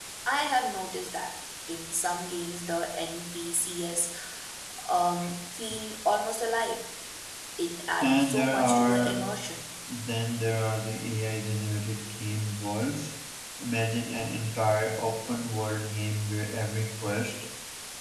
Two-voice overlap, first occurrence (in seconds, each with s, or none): 8.0 s